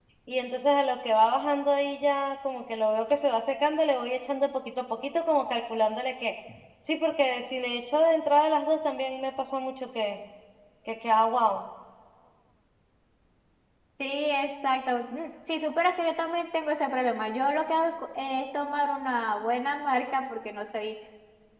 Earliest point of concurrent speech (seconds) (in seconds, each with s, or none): none